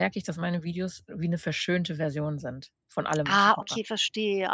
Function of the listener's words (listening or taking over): taking over